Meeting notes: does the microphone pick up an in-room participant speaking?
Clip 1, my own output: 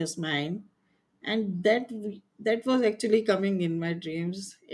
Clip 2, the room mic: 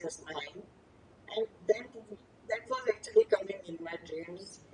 No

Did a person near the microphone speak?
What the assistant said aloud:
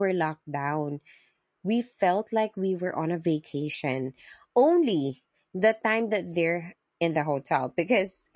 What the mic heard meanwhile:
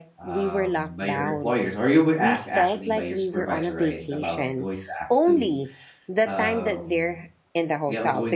Yes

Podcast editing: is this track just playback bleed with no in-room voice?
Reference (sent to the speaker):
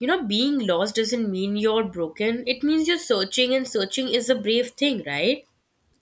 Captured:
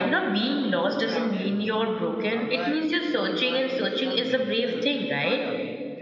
No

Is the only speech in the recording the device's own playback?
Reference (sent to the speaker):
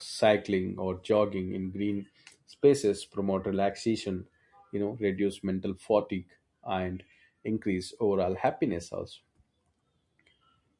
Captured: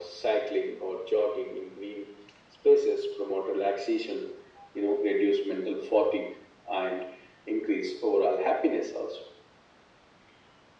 Yes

